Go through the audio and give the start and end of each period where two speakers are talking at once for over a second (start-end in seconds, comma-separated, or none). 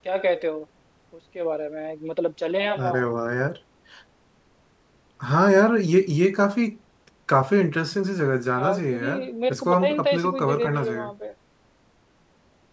8.6-11.1